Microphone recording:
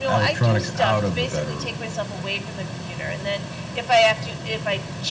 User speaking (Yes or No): No